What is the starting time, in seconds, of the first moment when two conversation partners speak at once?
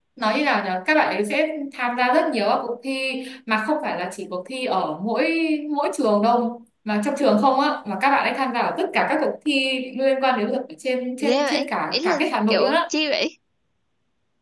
11.2 s

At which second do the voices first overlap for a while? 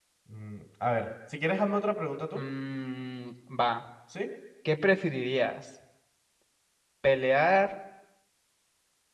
none

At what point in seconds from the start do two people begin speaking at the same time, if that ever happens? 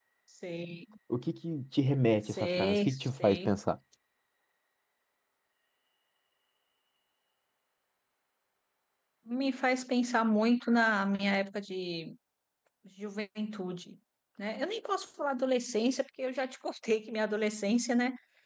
2.2 s

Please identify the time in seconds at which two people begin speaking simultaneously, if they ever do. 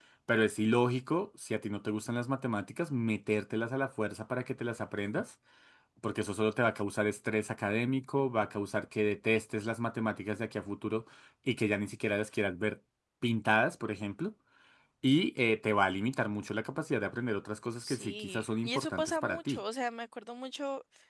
17.8 s

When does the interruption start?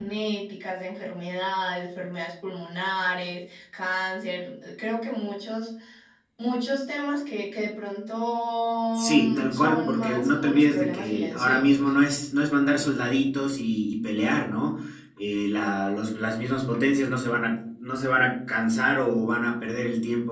9.0 s

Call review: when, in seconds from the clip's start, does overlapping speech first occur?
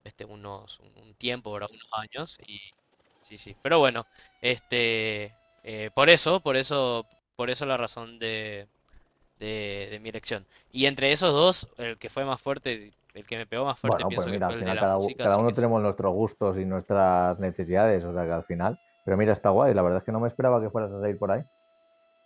13.8 s

